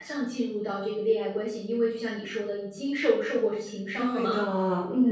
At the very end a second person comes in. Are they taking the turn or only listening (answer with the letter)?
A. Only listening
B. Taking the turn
B